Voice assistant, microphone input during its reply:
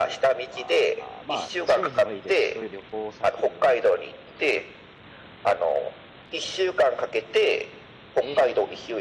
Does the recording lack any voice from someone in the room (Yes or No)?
No